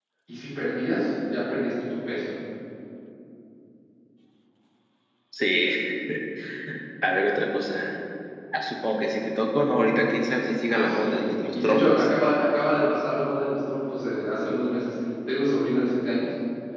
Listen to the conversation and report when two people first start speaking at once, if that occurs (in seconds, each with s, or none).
10.7 s